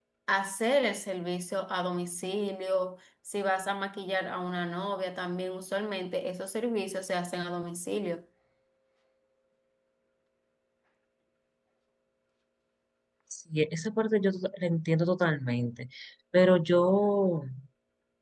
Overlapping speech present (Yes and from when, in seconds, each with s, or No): No